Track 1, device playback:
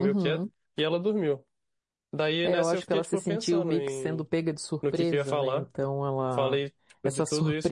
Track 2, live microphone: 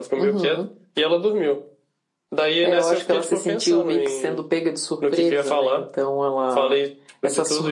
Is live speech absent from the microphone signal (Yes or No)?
Yes